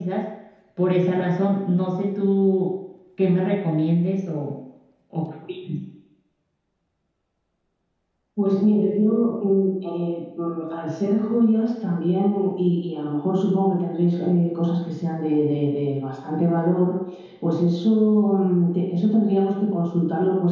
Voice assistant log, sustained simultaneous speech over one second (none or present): none